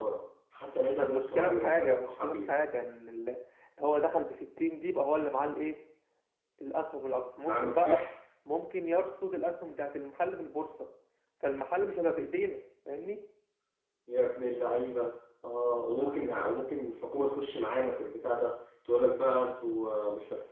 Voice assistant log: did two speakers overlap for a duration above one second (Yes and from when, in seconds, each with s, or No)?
Yes, from 0.9 s